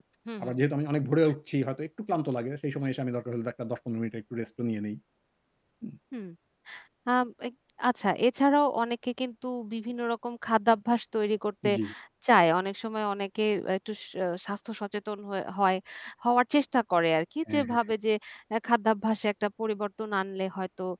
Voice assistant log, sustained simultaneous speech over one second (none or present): none